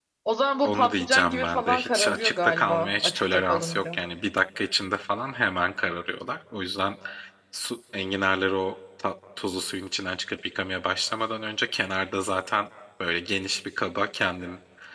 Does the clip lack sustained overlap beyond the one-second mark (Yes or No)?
No